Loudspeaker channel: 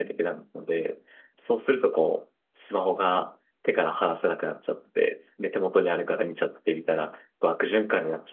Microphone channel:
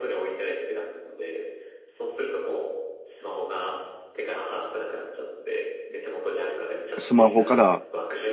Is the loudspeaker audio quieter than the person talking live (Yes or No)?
Yes